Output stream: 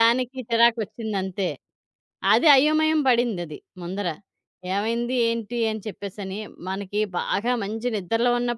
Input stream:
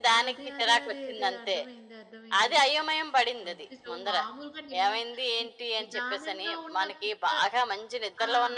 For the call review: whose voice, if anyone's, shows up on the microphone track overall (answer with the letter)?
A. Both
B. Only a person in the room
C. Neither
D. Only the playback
A